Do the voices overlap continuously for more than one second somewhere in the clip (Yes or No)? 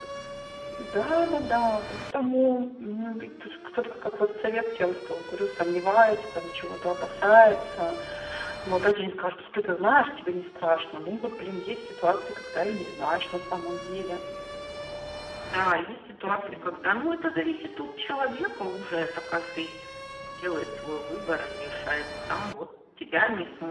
No